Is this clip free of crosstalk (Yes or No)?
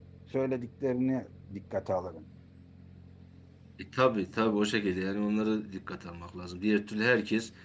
Yes